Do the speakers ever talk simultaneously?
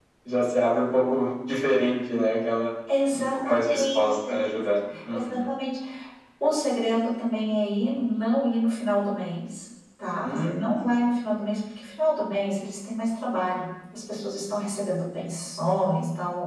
Yes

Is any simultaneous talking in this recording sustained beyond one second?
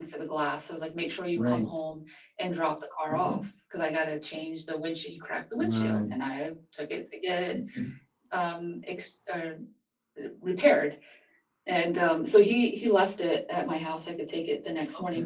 No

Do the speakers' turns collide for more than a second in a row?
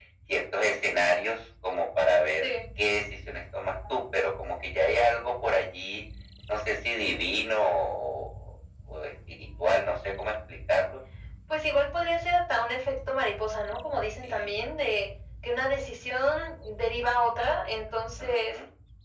No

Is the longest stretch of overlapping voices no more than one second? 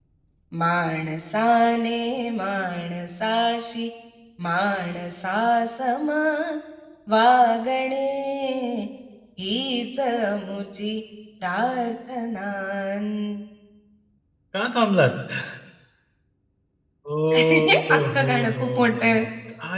No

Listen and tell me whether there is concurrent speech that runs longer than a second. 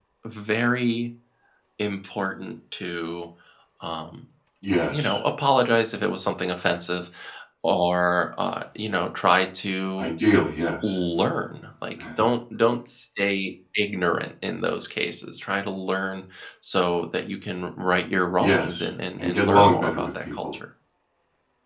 Yes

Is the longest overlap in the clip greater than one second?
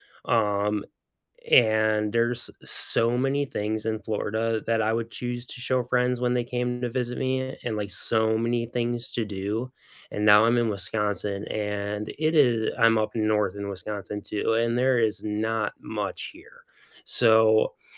No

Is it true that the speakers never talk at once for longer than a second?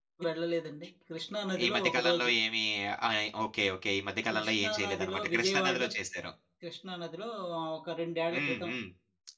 No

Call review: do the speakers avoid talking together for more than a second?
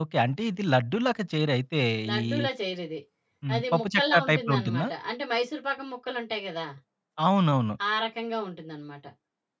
No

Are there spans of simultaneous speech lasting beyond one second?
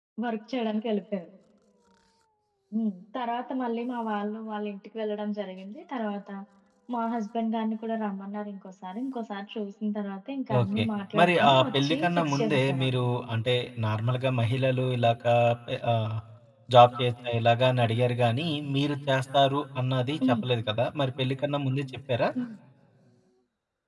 Yes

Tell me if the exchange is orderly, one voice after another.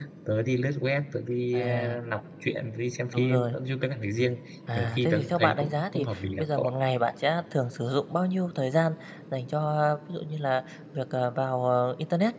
No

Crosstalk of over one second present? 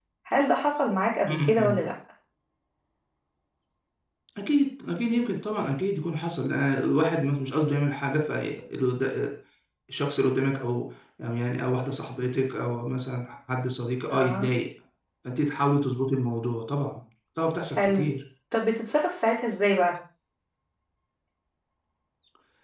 No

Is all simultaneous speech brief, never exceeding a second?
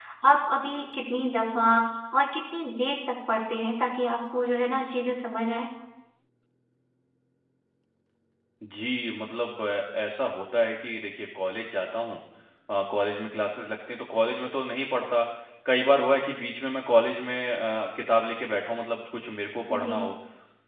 Yes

